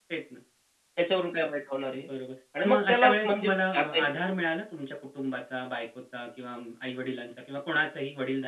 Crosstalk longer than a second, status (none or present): present